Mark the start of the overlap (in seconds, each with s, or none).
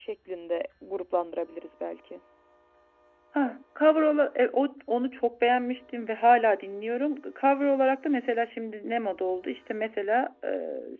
none